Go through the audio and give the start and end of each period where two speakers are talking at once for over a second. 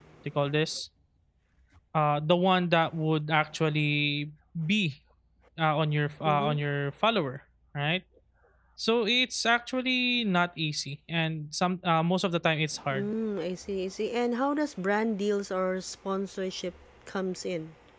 none

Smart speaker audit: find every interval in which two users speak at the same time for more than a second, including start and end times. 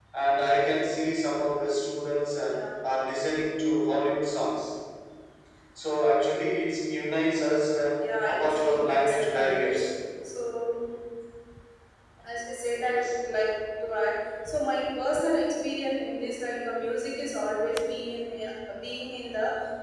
8.3-9.8

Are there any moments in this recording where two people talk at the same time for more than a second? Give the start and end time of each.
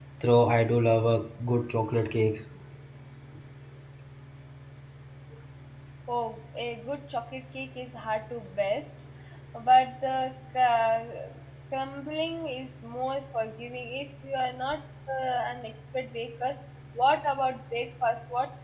none

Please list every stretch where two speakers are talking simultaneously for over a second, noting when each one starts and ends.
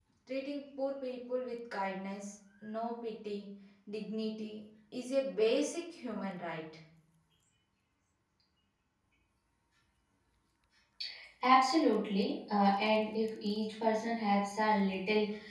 none

